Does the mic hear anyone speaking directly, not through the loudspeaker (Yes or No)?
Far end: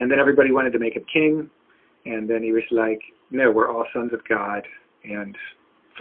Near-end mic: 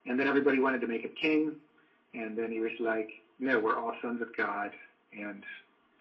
No